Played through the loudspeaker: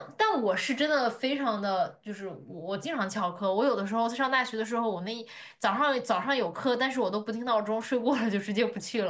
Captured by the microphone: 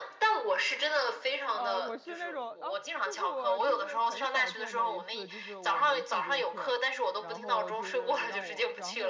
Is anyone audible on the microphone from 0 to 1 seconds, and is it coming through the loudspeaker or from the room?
echo only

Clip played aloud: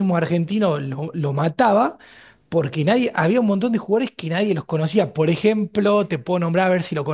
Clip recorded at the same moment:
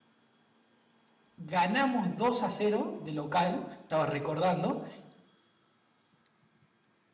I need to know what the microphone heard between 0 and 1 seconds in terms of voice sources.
neither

